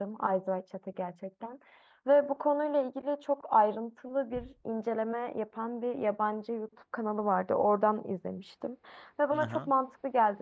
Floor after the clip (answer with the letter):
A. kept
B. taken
A